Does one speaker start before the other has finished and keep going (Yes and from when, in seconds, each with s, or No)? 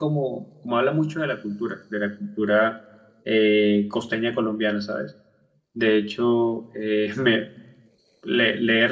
No